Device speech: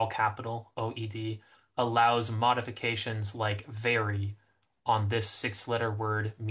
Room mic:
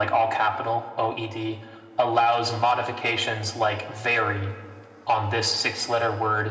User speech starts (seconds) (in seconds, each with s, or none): none